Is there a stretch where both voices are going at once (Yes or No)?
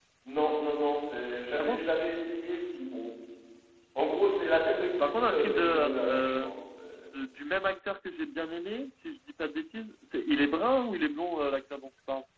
Yes